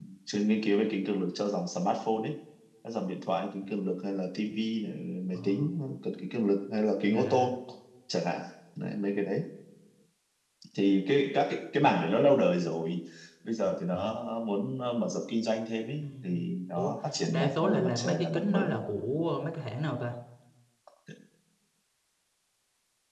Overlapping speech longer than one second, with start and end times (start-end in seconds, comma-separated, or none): 17.3-18.6